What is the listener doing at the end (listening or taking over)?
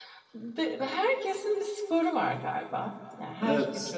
listening